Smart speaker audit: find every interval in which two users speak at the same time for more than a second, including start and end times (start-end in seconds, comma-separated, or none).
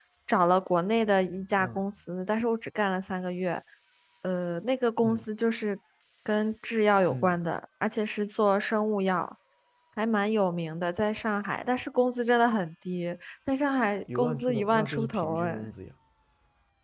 14.2-15.6